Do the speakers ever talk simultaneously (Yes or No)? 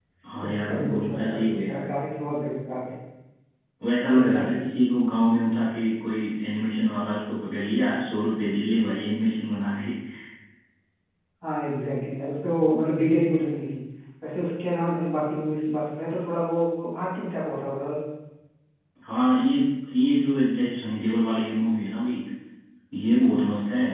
Yes